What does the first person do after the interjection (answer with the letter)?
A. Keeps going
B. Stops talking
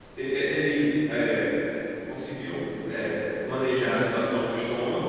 A